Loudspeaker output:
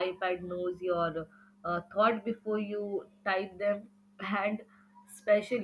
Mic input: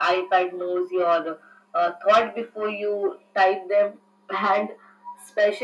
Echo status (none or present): present